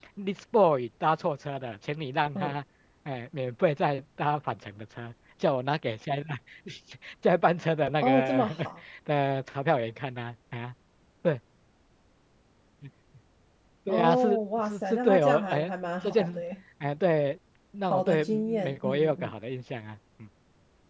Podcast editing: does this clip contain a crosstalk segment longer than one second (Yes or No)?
Yes